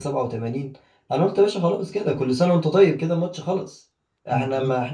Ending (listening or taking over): listening